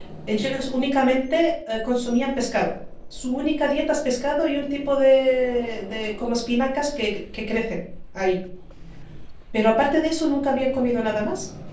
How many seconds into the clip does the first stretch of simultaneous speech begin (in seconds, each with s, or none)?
none